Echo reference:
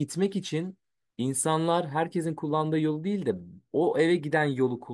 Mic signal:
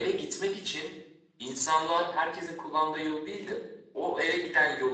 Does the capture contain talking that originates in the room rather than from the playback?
No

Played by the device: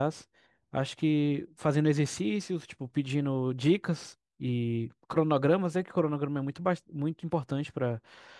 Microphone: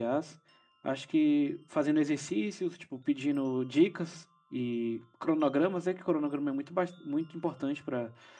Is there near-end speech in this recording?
No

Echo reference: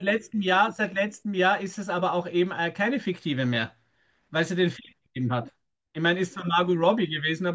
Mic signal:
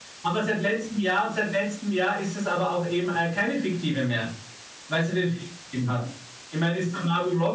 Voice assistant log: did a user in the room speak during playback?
No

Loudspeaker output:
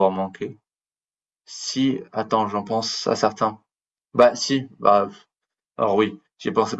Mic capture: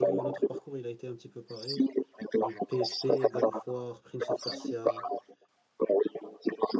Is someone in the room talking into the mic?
Yes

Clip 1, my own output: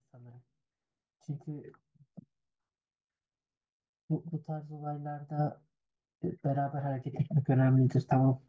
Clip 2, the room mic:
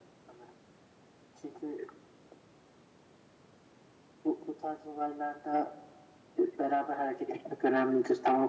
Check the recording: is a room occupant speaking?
No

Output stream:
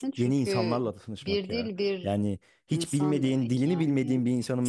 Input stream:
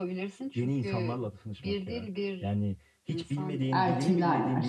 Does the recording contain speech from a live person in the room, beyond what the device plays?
Yes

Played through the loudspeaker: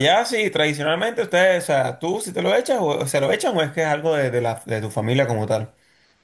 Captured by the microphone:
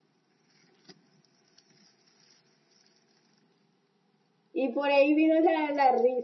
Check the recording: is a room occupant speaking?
Yes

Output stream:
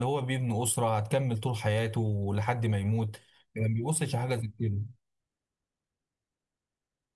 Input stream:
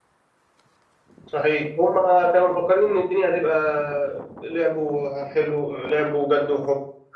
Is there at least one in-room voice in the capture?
Yes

